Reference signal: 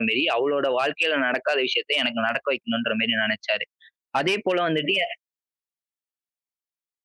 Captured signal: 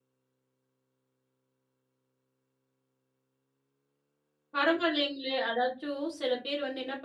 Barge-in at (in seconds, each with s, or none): 4.5 s